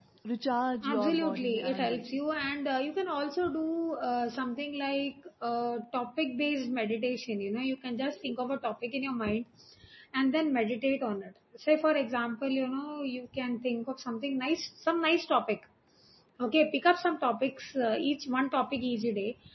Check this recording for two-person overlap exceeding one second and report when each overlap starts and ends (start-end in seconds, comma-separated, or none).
0.9-2.2